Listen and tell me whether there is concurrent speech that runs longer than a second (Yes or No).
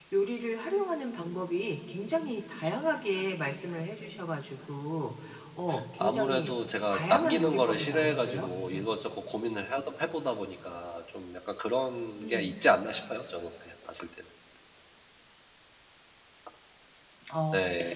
Yes